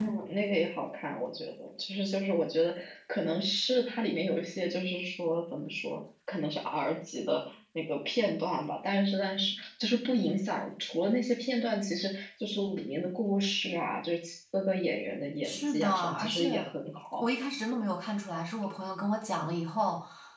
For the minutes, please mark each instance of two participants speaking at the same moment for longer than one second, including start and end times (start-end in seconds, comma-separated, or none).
15.4-16.7